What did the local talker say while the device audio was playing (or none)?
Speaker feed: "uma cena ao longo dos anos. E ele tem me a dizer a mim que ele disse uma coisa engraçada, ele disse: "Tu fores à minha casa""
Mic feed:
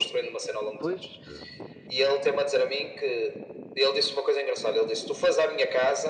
Pois, eh,